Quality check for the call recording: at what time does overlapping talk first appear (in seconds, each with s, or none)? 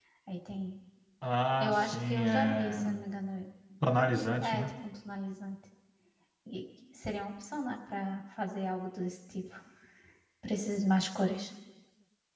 1.6 s